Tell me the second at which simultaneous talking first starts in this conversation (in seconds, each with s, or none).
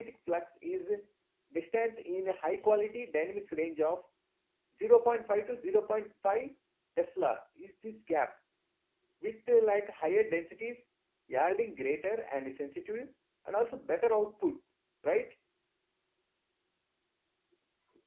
none